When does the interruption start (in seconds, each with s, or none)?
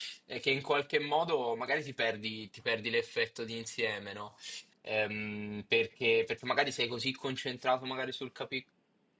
none